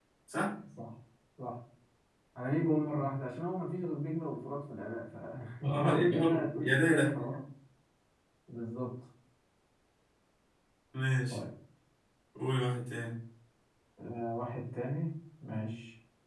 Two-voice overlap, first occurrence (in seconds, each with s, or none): 5.6 s